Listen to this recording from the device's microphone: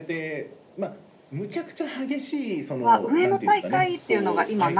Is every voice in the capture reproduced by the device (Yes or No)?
No